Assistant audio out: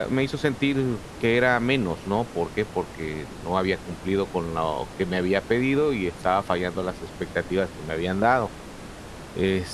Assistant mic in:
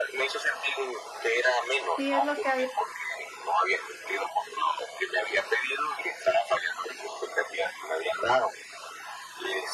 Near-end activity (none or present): present